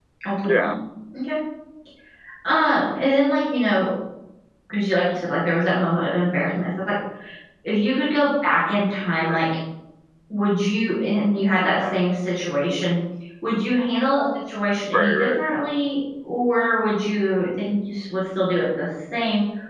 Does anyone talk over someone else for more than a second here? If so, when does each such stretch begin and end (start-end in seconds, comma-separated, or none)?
none